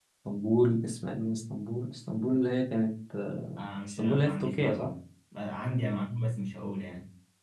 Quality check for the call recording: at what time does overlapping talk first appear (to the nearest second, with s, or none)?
4 s